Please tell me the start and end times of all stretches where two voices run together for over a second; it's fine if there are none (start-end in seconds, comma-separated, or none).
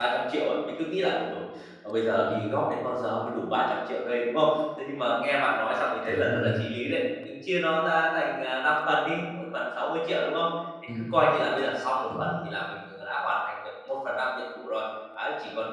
none